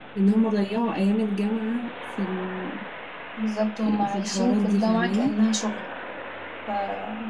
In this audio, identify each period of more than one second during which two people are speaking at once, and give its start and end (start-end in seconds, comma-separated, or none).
4.0-5.4